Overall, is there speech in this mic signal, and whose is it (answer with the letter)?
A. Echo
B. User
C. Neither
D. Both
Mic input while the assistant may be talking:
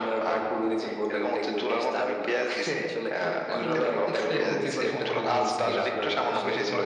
D